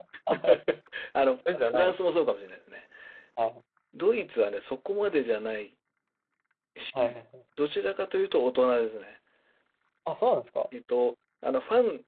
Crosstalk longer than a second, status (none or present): none